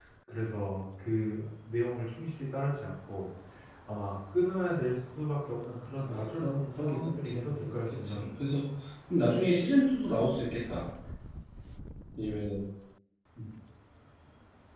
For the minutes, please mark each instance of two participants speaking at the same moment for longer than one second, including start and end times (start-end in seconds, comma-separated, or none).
6.1-8.4